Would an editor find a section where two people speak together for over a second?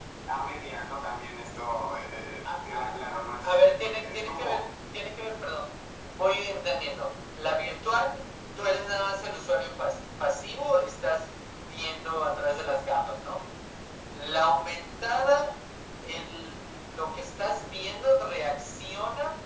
Yes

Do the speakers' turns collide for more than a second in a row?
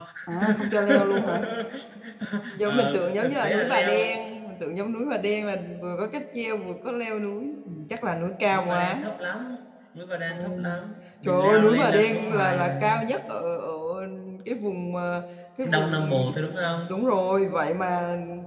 Yes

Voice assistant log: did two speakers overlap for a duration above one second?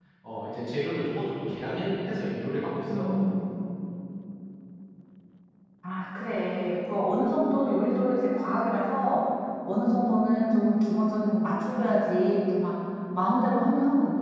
No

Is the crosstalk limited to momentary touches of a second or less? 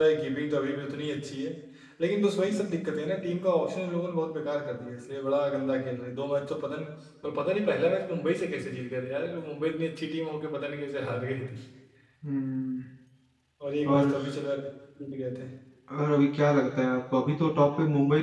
Yes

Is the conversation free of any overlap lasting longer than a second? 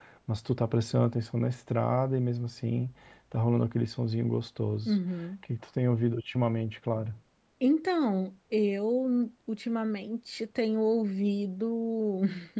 Yes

